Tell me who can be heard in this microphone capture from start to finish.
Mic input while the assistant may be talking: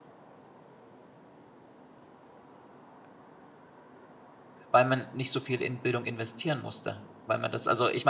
user only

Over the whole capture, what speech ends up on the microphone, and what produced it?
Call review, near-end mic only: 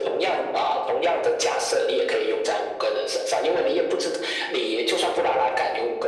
echo only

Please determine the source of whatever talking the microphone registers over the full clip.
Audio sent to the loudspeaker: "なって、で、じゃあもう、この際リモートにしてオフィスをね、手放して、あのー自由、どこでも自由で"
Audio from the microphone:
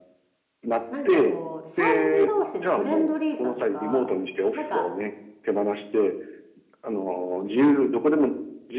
both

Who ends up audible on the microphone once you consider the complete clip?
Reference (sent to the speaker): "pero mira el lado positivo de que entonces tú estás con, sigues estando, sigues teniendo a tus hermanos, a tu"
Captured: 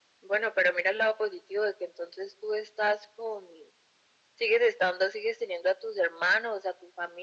echo only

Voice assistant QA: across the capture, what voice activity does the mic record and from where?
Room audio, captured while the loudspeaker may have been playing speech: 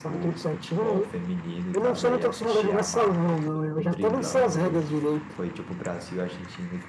both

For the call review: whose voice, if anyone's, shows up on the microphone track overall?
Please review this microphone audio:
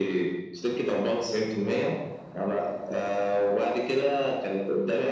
echo only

